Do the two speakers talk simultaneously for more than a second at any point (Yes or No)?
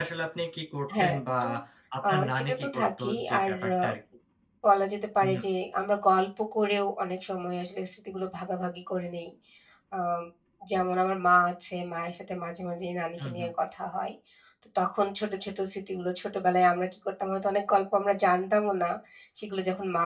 Yes